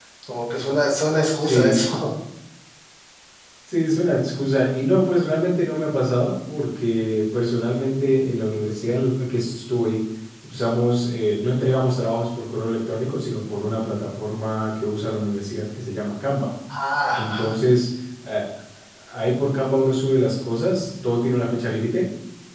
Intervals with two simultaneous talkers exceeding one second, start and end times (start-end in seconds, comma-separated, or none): none